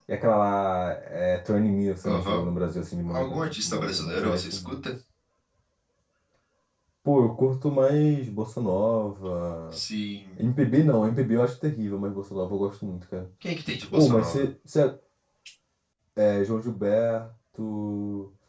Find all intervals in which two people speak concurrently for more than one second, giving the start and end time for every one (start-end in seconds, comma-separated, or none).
3.1-4.8